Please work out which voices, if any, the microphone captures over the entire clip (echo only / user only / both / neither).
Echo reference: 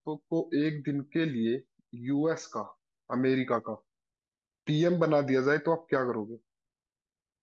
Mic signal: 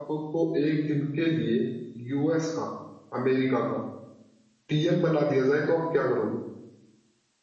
echo only